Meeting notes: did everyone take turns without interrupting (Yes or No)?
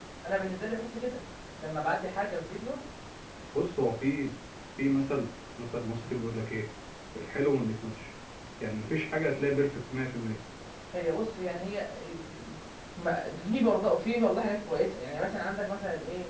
Yes